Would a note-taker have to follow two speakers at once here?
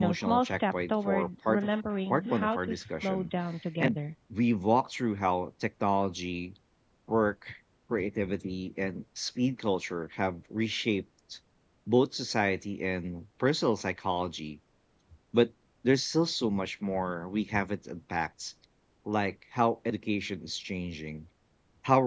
Yes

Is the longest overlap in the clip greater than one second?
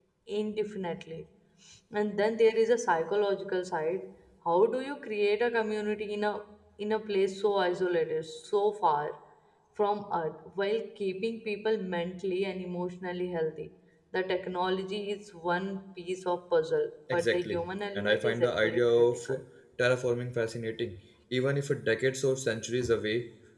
Yes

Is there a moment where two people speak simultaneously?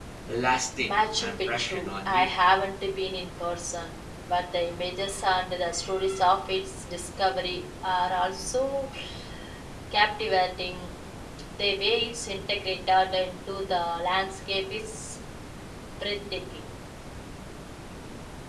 Yes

